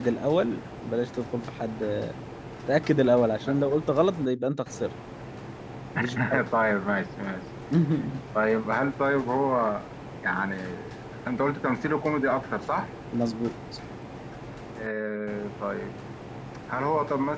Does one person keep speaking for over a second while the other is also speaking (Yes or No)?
No